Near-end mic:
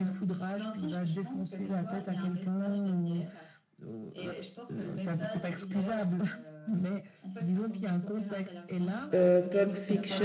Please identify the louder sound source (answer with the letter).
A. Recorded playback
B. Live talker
B